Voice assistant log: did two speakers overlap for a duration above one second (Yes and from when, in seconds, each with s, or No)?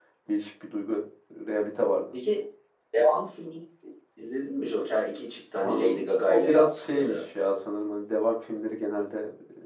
Yes, from 5.5 s